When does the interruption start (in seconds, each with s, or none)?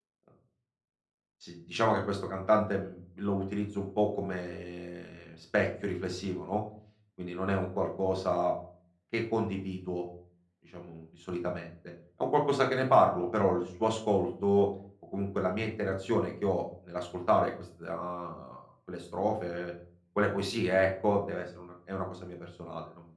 none